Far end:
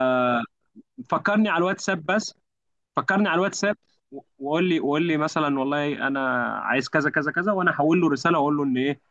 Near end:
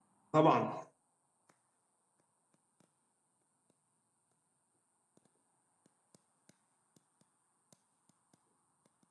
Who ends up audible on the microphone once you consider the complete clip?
user only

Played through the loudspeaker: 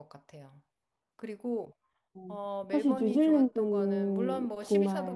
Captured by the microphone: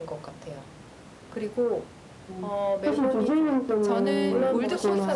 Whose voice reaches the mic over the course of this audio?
both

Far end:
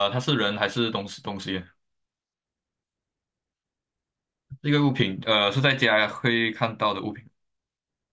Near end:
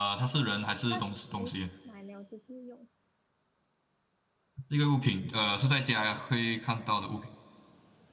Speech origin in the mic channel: both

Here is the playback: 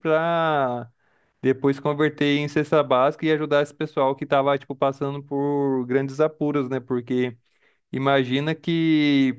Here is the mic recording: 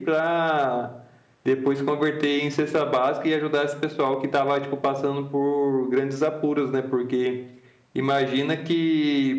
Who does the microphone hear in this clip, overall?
echo only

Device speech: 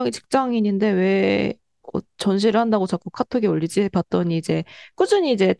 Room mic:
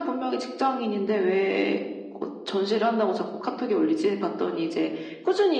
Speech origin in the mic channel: echo only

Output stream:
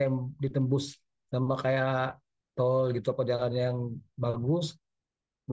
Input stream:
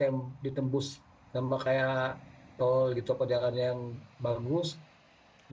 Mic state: echo only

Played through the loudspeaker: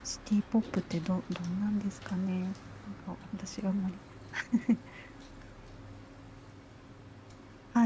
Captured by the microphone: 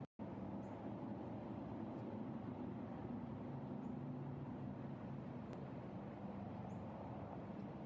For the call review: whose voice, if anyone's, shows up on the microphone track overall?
neither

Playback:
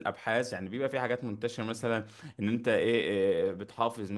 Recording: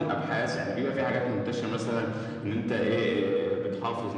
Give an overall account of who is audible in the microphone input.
echo only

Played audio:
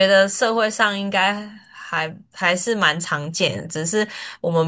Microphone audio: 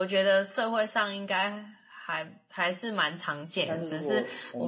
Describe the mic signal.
both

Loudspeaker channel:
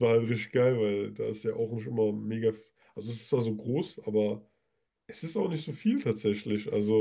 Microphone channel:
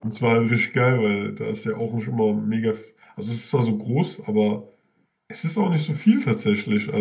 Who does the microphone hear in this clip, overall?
echo only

